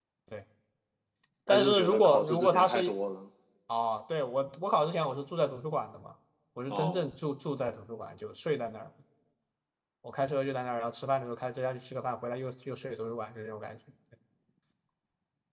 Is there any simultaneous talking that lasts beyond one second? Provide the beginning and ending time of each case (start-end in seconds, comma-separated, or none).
1.5-3.0